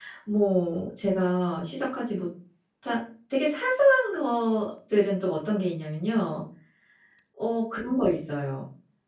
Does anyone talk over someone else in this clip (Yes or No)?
No